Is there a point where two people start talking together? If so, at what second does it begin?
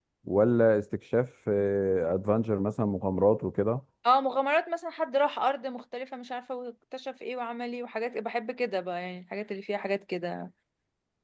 none

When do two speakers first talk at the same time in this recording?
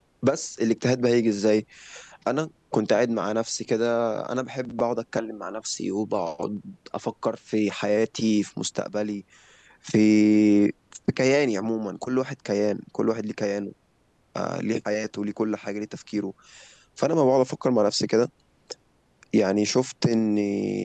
none

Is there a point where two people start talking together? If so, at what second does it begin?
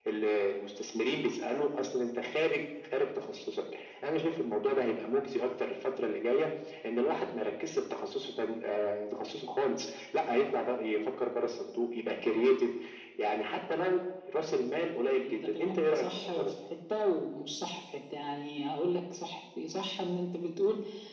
15.2 s

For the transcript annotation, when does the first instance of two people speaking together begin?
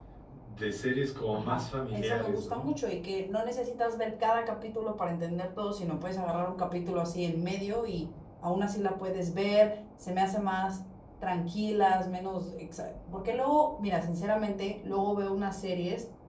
1.3 s

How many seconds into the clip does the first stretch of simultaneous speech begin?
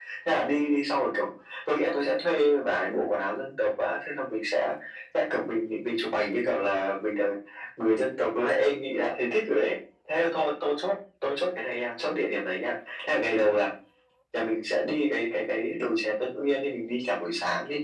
none

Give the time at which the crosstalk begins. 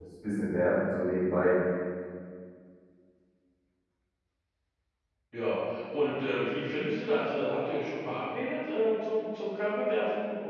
none

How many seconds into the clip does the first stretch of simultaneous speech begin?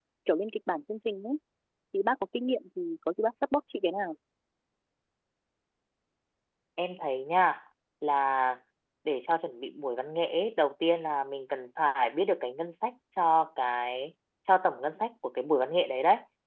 none

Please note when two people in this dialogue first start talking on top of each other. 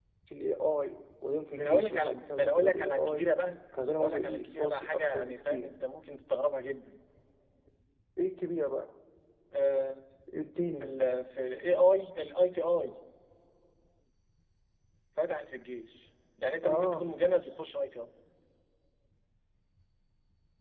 1.5 s

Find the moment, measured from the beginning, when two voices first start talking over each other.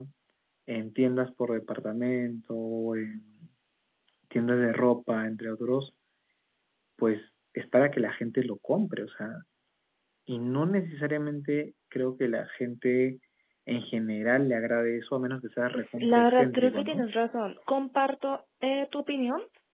15.7 s

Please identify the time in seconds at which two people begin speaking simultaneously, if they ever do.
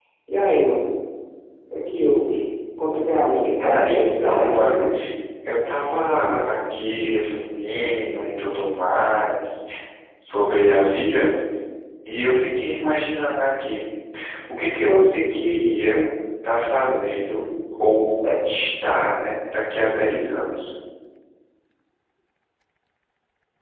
3.6 s

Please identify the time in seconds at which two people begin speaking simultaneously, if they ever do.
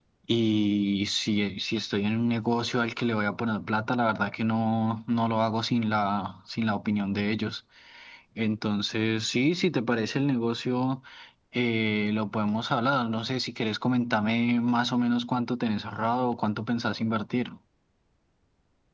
none

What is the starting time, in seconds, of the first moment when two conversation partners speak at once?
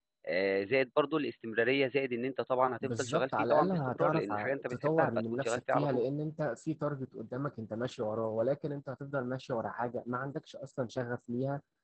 2.8 s

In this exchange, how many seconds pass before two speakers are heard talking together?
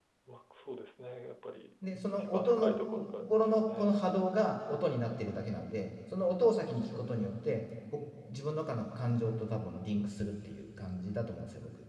1.8 s

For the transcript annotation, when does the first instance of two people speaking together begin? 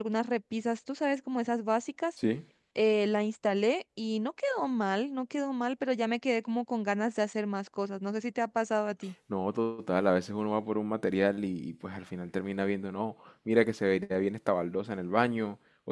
none

